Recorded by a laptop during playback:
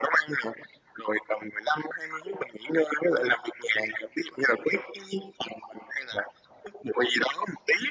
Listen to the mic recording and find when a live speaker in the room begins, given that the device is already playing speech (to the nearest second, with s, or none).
none